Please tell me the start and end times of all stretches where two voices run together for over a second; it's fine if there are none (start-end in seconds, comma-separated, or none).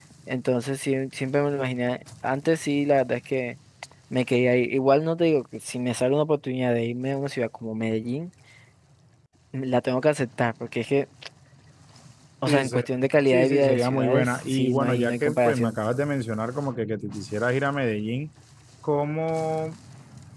13.3-15.8